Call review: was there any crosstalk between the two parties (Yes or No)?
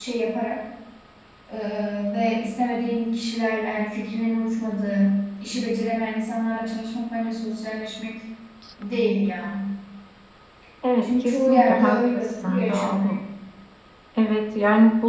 Yes